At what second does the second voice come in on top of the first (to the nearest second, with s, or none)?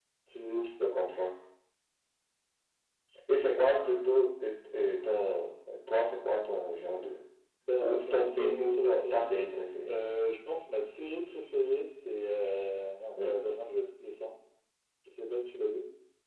8 s